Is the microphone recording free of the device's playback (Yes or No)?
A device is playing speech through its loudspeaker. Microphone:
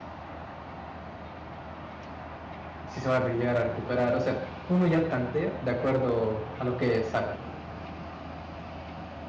Yes